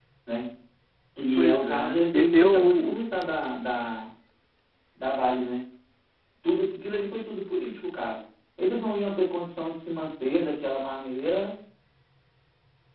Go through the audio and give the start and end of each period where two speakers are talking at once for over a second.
1.4-3.0

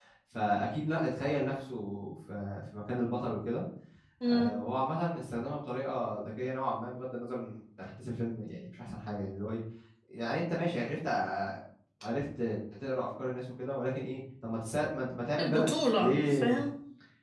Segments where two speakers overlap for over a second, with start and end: 15.4-16.6

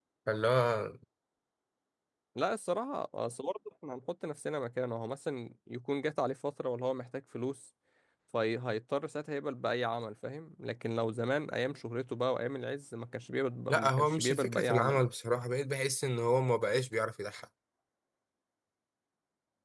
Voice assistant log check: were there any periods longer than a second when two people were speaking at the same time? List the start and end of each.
13.7-15.0

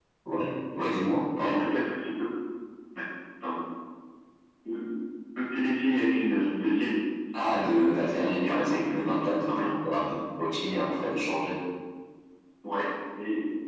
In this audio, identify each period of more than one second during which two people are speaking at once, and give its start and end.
7.5-9.8

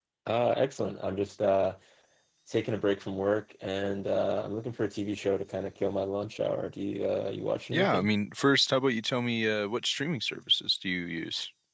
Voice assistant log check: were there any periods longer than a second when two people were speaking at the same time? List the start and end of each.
none

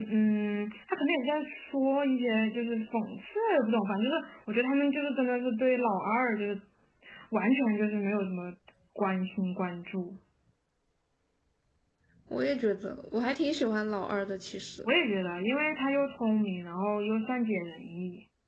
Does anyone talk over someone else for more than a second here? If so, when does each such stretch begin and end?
none

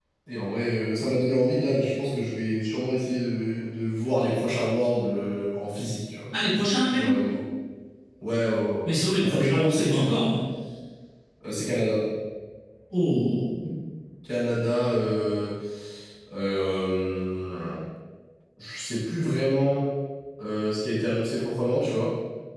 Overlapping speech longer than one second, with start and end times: 8.8-10.2

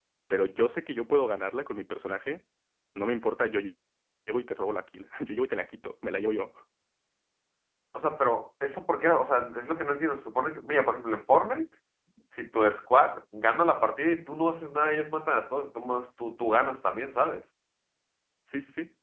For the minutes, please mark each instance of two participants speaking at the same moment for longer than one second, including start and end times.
none

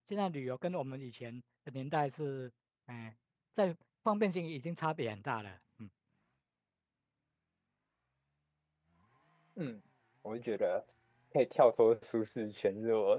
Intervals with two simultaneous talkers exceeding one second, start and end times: none

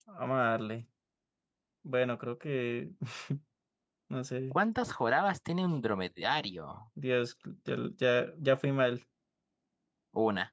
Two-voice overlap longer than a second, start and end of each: none

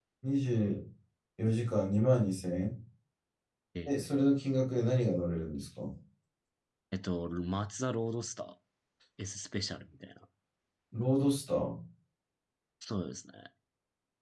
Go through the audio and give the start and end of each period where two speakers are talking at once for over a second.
none

